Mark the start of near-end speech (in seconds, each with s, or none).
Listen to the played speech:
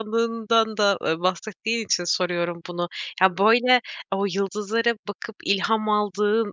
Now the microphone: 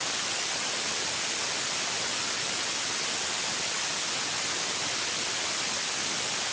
none